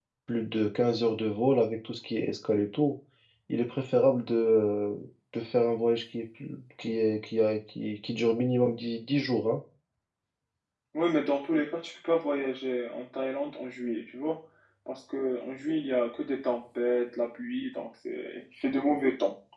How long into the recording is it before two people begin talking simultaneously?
none

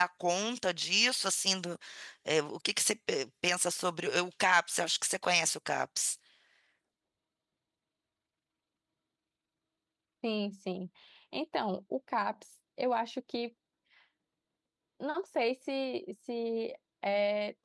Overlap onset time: none

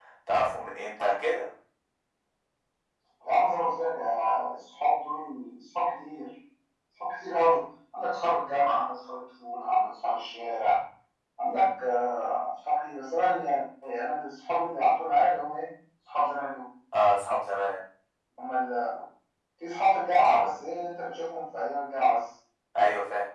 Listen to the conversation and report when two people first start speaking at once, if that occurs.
none

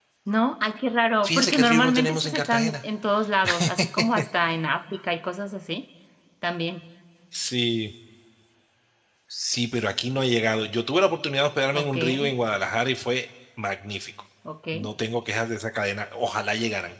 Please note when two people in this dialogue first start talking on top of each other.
1 s

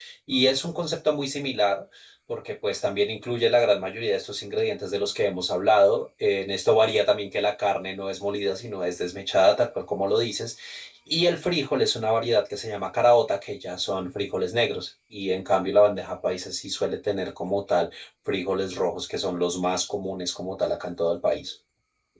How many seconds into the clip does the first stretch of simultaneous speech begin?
none

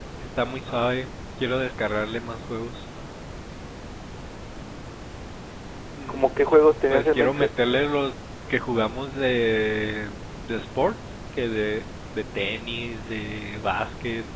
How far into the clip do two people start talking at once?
6 s

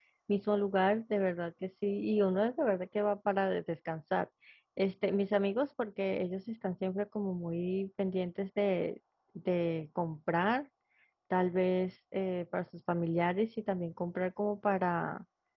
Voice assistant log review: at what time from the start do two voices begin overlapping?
none

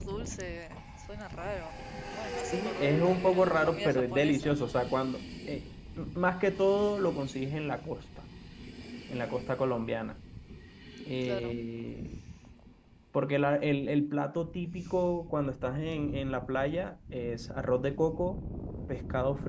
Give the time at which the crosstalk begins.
3 s

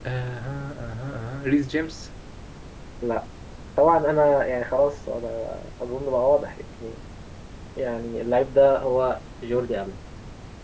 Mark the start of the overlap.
none

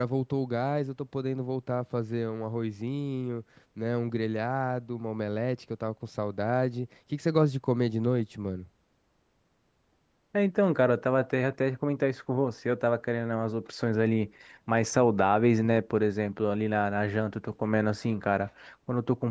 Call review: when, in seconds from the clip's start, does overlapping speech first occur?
none

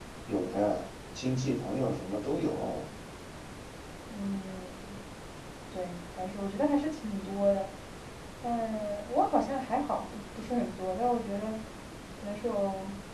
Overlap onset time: none

